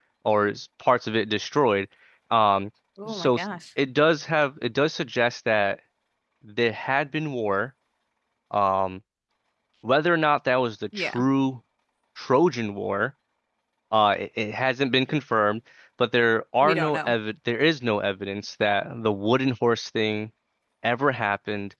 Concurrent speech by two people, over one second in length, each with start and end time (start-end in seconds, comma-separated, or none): none